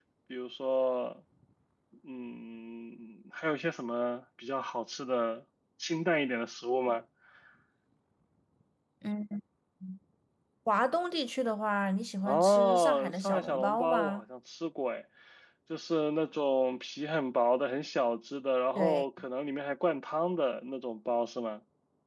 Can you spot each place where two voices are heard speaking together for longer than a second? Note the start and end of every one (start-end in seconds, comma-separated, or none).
12.2-14.2